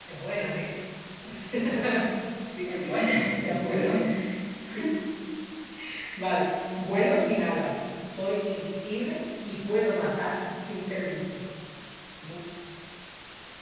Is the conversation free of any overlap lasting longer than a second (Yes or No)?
No